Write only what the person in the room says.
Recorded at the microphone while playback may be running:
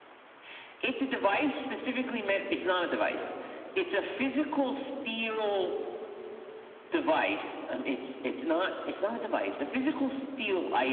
none

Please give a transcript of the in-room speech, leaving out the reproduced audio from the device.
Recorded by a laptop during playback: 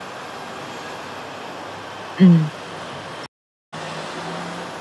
嗯，

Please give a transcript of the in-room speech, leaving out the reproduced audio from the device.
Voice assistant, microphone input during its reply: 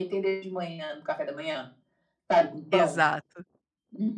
exato.

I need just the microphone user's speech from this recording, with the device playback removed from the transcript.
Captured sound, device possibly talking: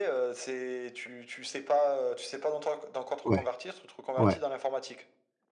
Ouais, ouais,

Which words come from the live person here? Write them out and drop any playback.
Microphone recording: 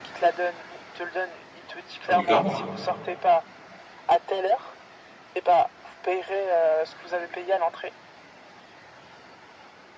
non, mais clairement.

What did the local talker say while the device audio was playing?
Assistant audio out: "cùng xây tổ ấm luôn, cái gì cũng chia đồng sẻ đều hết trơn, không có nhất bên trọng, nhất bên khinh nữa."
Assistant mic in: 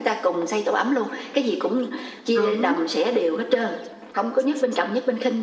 đúng,

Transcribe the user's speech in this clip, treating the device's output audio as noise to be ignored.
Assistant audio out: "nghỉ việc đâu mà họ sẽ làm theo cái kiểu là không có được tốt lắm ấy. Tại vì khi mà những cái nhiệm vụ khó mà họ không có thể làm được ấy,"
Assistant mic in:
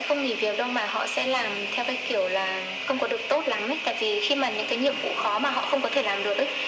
none

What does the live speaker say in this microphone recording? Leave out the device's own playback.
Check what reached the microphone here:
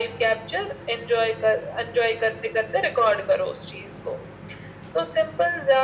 none

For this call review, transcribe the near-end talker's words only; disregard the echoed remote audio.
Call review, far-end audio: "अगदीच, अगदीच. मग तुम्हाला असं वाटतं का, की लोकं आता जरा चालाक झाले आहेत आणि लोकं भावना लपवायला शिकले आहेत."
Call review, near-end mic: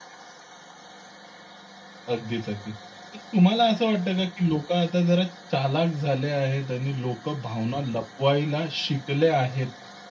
none

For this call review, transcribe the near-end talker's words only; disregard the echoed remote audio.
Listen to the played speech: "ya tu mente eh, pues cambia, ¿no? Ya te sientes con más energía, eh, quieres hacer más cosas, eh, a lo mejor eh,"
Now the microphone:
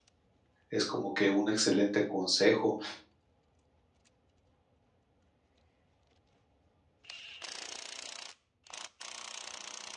es como que un excelente consejo.

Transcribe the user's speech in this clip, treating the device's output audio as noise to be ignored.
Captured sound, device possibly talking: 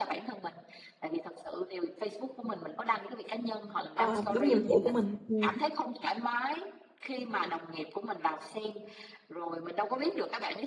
ờ, đúng nhiệm vụ của mình, ừm.

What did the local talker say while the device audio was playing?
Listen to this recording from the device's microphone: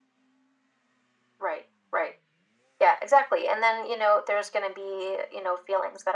none

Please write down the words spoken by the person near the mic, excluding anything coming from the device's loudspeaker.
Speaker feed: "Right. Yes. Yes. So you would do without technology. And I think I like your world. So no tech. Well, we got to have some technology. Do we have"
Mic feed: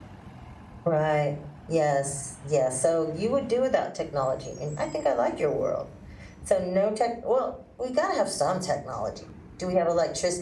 none

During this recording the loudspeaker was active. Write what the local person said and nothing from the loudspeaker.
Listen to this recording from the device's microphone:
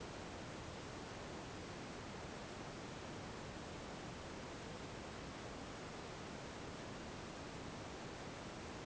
none

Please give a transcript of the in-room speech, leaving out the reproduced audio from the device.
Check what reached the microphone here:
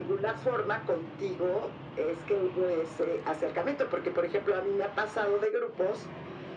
none

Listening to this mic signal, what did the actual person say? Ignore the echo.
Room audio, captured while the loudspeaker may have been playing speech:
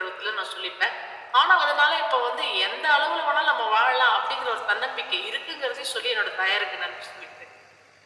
none

